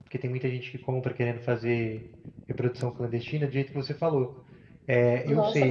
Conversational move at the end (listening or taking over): taking over